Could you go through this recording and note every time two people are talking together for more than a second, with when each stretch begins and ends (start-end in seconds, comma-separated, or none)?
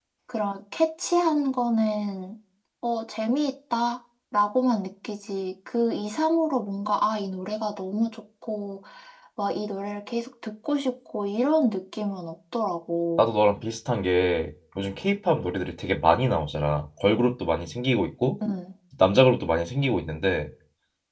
none